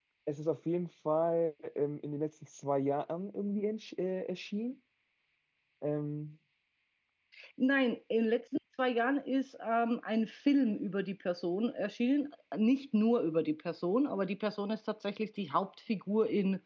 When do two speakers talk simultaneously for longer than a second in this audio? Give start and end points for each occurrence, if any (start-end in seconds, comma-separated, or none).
none